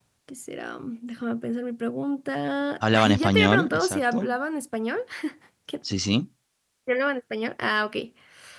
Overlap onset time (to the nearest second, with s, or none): 3 s